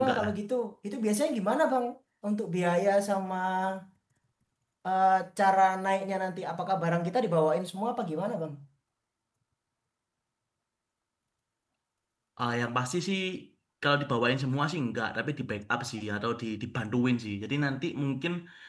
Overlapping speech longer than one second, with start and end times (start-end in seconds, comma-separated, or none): none